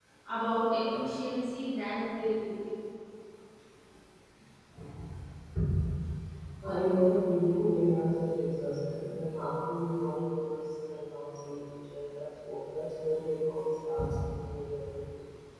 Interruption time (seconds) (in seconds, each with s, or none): none